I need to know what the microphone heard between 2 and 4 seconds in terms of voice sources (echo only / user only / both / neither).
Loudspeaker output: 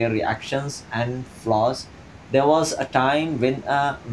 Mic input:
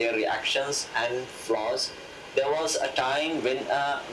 echo only